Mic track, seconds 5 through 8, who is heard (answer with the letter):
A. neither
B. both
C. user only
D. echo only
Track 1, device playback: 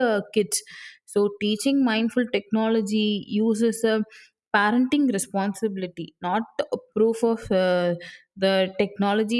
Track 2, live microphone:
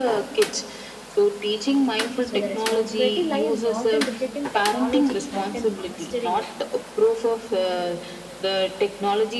B